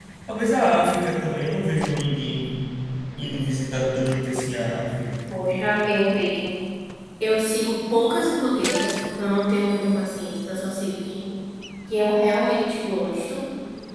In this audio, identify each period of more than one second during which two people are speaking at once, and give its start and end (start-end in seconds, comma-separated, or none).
none